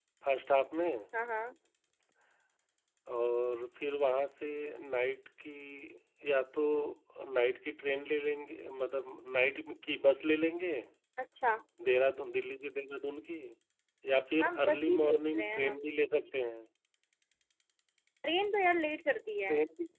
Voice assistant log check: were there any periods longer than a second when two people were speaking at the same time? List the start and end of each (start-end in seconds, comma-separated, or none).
14.4-15.8